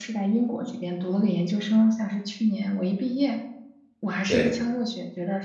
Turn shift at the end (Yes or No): No